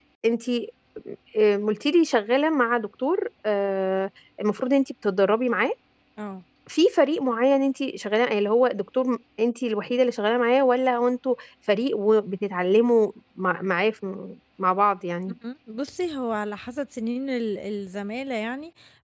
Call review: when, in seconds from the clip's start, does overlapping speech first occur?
none

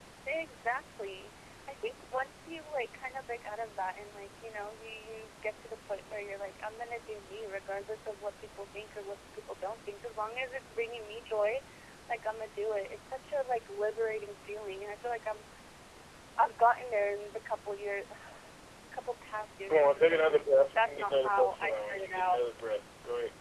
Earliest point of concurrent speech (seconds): 19.7 s

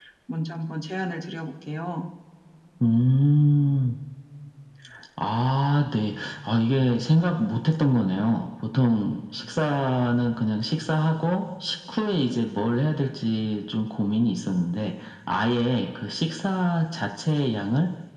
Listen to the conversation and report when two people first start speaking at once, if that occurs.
none

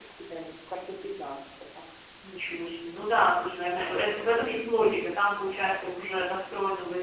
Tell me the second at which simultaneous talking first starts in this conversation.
none

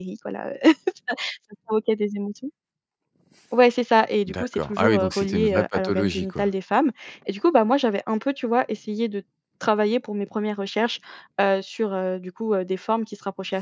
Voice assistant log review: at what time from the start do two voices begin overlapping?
4.2 s

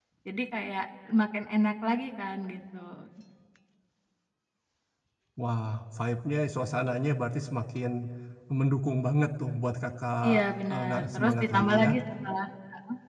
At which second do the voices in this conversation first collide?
10.2 s

